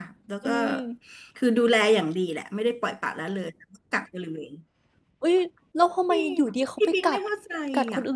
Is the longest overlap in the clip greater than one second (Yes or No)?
No